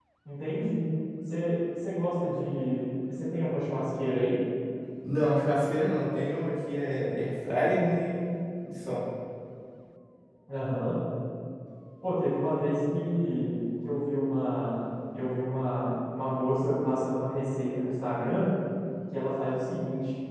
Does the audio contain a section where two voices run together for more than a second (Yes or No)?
No